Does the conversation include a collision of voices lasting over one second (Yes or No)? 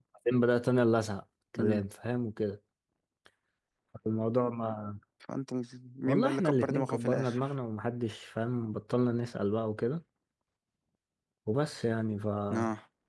Yes